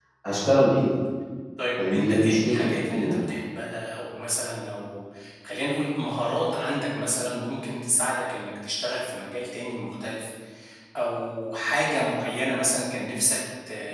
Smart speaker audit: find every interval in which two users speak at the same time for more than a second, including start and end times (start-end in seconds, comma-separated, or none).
1.9-3.2